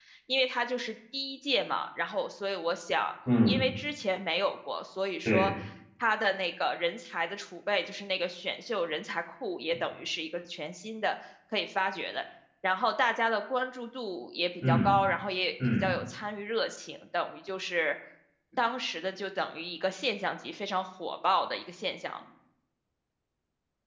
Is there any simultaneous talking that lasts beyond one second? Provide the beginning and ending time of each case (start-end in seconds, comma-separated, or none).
none